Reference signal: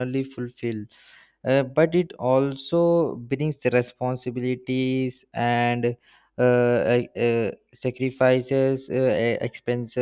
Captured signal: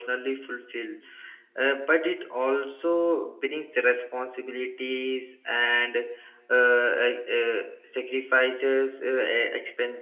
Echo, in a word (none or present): present